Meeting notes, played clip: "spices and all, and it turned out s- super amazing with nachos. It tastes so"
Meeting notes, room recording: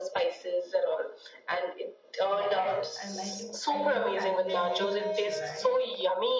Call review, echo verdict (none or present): present